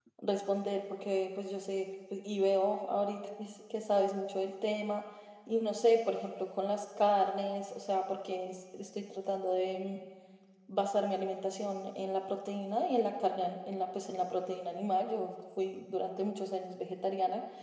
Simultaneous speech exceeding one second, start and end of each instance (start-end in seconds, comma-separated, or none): none